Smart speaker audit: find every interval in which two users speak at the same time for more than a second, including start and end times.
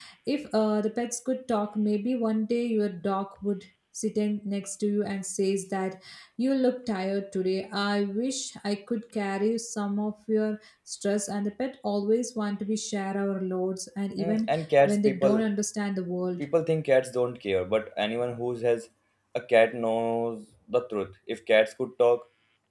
14.2-15.4

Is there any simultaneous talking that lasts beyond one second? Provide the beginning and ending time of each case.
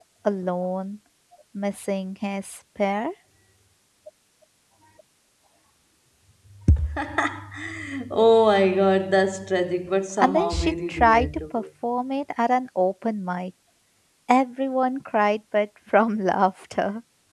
10.2-11.6

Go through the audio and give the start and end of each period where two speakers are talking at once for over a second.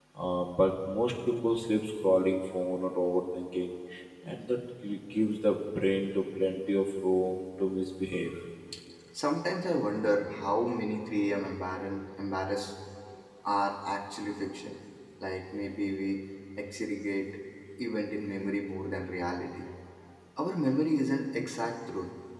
none

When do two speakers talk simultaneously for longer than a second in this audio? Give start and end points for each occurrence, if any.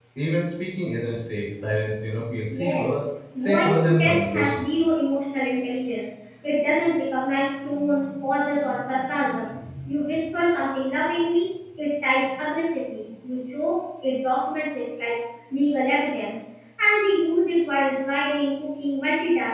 3.4-4.7

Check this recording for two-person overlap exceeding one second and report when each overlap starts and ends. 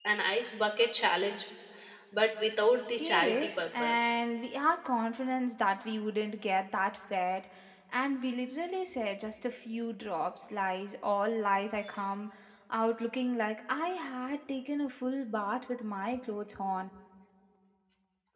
3.0-4.2

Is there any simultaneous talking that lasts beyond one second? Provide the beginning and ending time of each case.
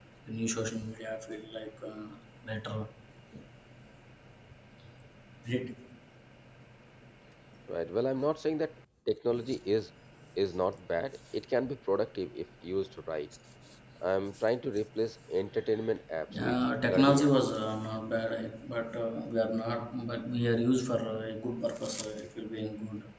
16.3-17.5

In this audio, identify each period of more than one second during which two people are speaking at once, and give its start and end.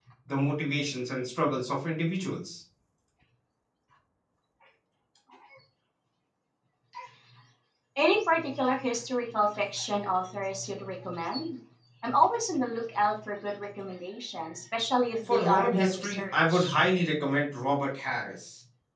15.3-16.7

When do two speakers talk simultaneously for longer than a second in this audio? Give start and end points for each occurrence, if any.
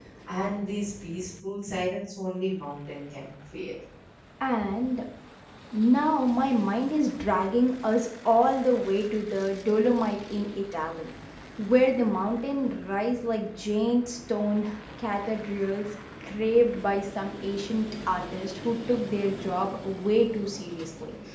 none

